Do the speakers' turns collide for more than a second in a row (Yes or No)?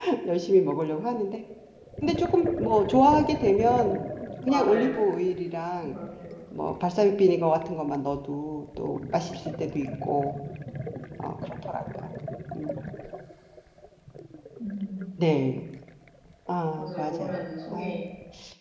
Yes